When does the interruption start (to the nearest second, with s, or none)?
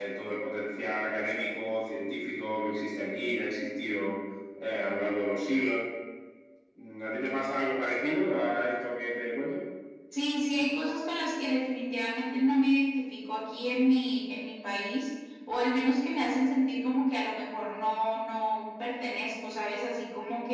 none